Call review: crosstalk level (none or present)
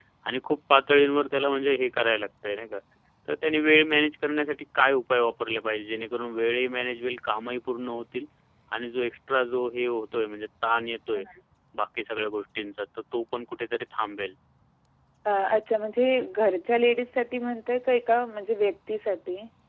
none